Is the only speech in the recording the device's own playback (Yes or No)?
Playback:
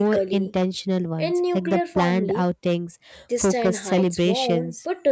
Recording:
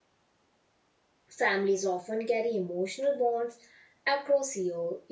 No